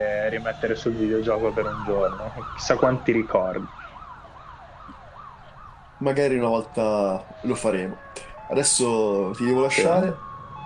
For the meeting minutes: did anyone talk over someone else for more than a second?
No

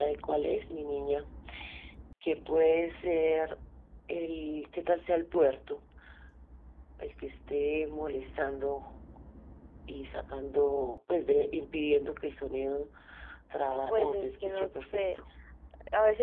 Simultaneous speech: Yes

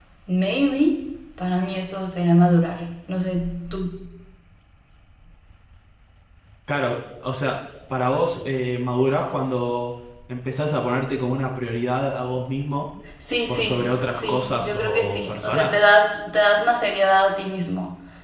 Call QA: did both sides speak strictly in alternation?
No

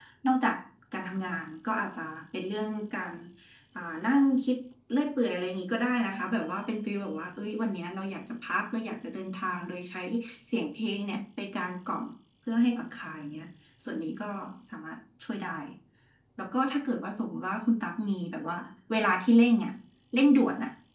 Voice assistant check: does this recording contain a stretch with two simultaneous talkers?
No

